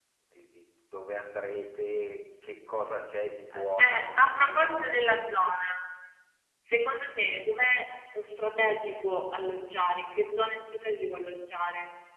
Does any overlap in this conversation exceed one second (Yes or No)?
Yes